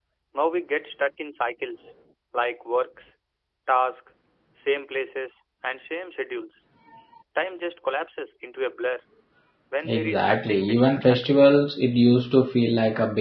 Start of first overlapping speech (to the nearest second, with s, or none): 10 s